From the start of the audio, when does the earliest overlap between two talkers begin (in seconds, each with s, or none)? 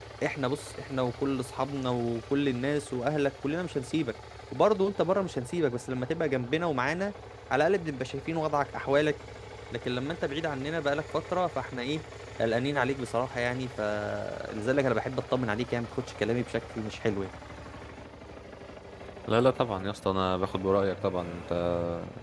none